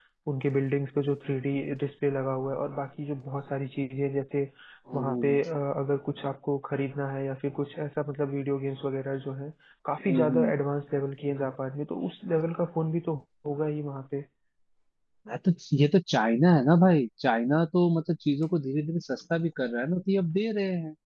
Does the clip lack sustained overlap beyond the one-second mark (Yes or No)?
Yes